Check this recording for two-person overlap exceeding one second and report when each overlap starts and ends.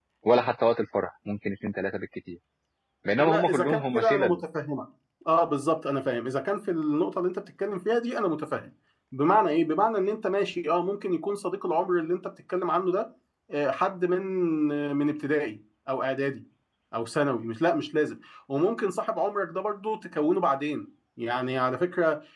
3.2-4.4

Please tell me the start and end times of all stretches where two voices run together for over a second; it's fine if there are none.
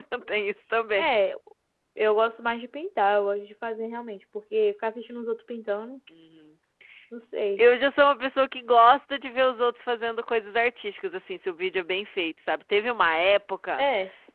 none

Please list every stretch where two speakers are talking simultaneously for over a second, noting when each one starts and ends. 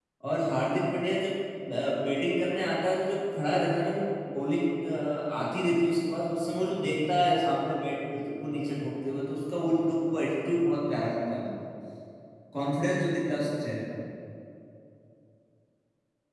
none

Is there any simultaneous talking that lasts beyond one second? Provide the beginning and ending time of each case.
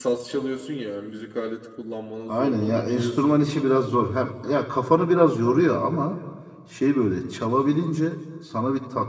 2.3-3.7

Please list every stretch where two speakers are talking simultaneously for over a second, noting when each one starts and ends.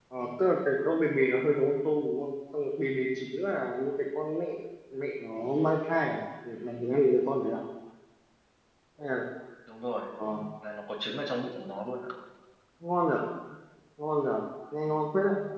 none

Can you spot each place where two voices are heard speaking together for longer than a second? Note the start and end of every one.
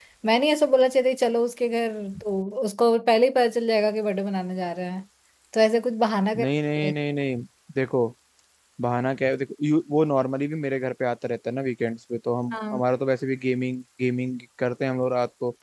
none

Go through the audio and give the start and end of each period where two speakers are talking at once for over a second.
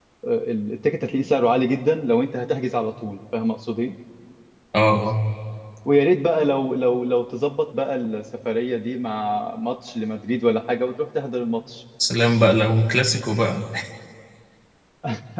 none

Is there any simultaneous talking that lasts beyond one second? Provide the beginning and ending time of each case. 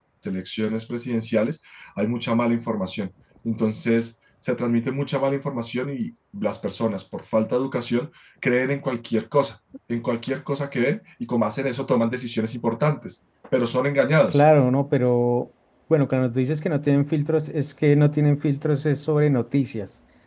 none

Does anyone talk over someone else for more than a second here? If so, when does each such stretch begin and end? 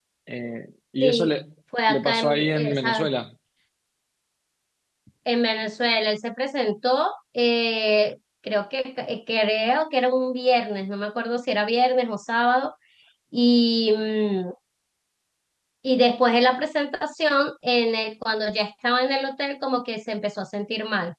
1.9-3.1

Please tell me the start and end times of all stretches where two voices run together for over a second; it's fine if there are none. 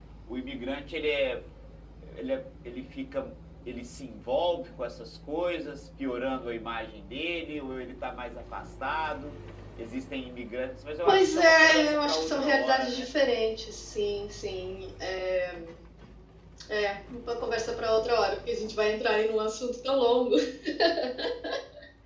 11.0-13.1

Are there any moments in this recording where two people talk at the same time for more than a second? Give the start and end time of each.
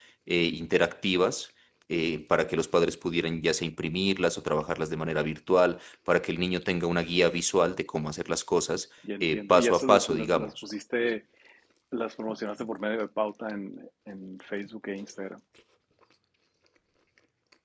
9.2-10.5

